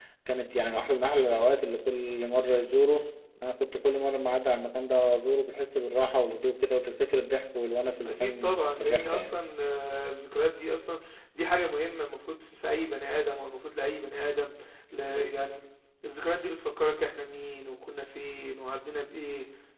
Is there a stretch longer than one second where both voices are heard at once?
Yes, from 8.1 s

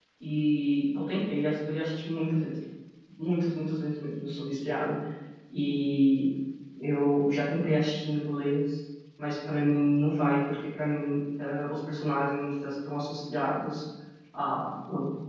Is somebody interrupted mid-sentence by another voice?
No

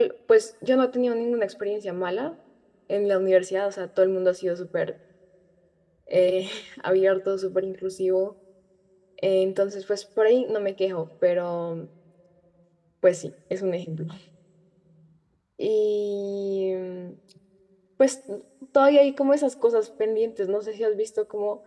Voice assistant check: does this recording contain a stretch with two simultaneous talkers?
No

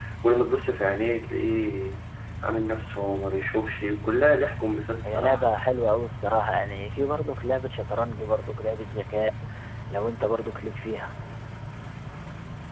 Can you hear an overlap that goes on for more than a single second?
No

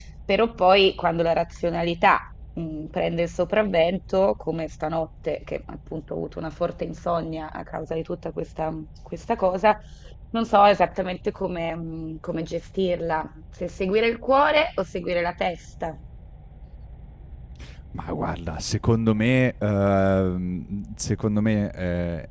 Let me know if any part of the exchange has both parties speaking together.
No

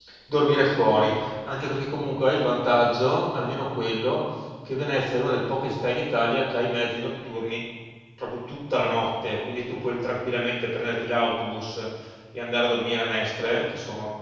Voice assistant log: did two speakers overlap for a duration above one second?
No

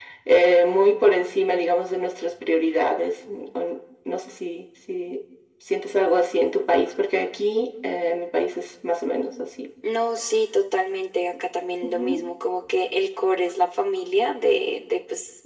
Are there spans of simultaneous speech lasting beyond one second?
No

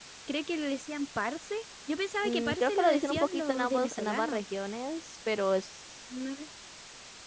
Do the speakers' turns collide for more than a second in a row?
Yes, from 2.2 s

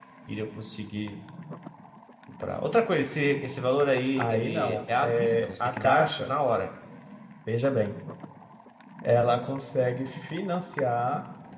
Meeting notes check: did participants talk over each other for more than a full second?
Yes, from 4.2 s

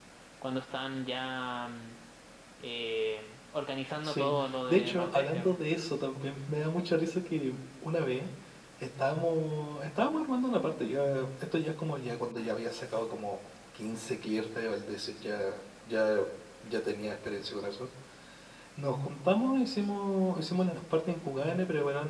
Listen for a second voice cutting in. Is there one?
Yes, from 4.0 s

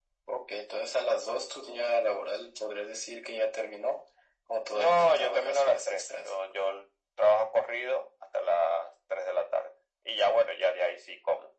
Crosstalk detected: Yes, from 4.7 s

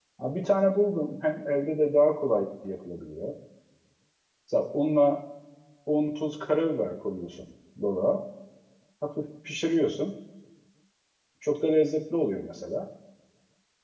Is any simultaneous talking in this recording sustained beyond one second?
No

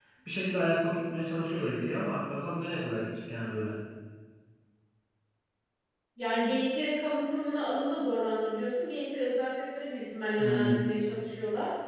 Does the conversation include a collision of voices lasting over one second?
No

